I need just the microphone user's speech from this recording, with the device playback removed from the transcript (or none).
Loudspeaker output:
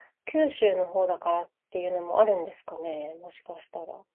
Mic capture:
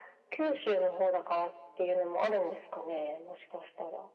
none